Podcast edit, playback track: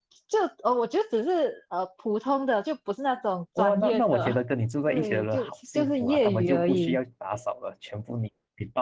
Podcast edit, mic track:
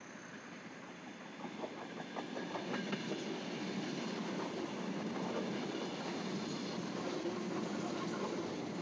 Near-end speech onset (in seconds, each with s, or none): none